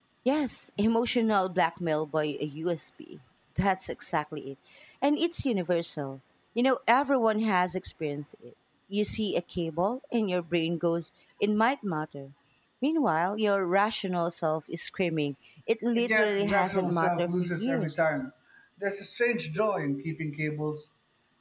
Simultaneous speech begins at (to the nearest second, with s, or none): 16 s